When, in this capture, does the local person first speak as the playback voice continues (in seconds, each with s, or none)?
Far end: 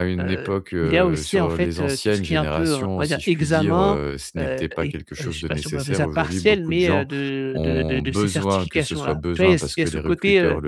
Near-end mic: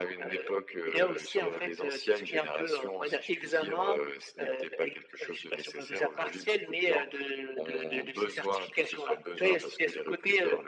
none